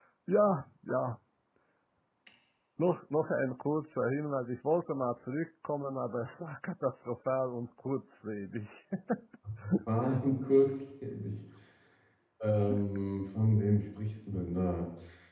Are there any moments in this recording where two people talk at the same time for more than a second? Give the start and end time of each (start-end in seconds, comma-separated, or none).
none